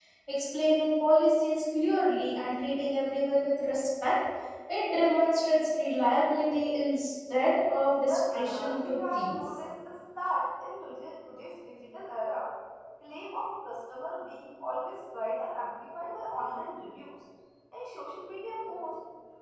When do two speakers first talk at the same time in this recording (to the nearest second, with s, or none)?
8 s